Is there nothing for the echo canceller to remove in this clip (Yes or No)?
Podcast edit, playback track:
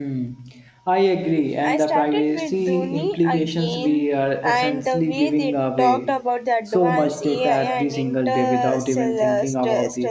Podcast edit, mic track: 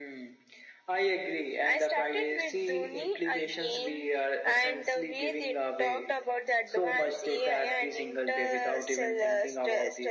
No